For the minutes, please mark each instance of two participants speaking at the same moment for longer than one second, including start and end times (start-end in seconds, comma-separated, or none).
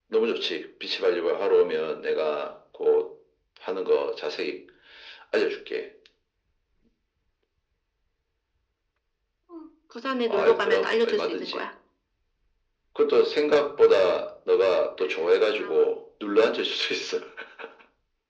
10.3-11.6